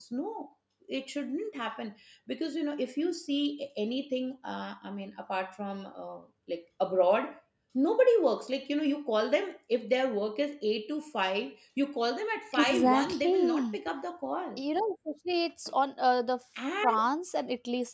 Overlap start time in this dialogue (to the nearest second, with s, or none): 13 s